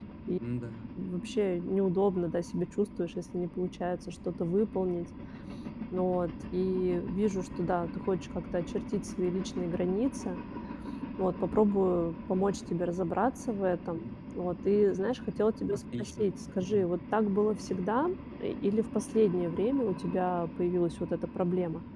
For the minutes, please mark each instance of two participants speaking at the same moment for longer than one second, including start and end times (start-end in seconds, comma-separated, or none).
none